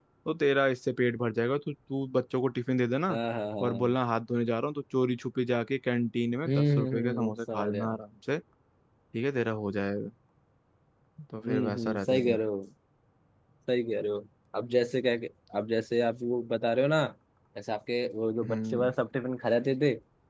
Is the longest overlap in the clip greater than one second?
Yes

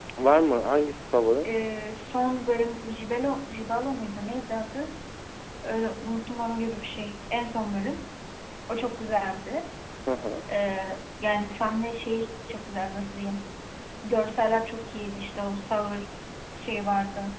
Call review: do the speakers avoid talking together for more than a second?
Yes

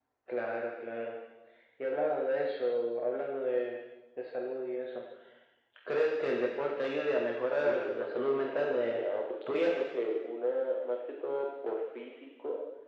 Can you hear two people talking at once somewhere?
Yes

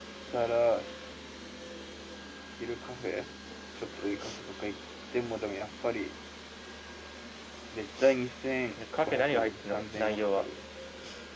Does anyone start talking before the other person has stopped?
Yes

